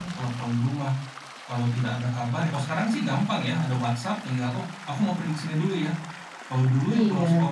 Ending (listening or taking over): listening